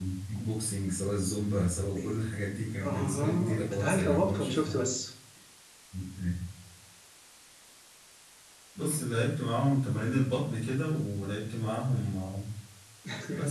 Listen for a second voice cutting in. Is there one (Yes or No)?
Yes